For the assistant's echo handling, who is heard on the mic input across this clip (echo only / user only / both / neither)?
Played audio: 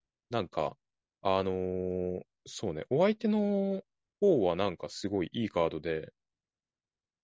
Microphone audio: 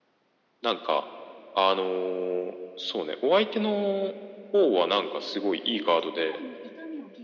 both